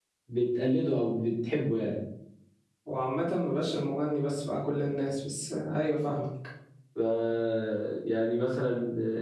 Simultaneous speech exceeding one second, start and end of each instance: none

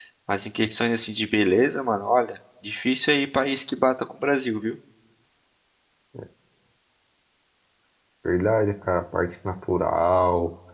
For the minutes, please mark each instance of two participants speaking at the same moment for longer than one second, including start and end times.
none

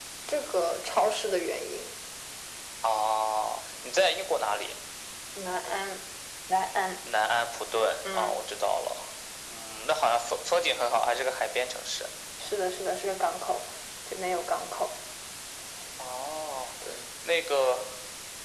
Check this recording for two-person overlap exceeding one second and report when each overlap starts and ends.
none

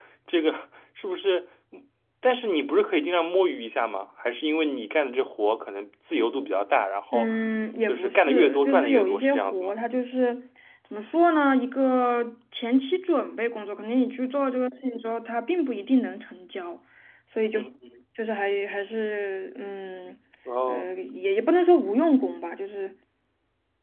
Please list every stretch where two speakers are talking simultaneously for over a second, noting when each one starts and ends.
7.9-9.8

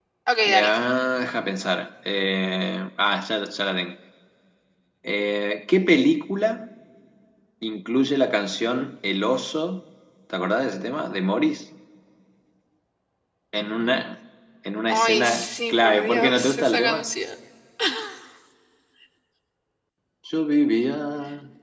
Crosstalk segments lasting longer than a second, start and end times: 14.9-17.0

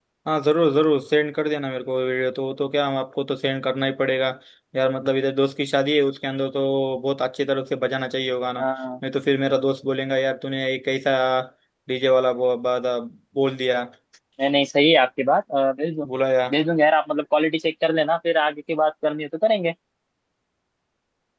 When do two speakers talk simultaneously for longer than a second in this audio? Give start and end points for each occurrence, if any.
none

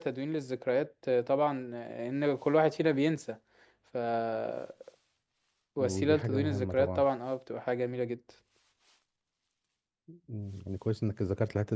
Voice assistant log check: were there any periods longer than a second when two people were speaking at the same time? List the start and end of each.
5.8-7.0

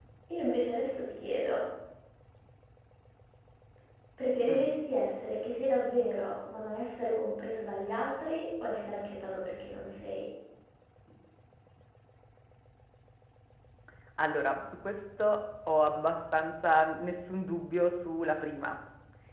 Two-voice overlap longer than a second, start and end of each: none

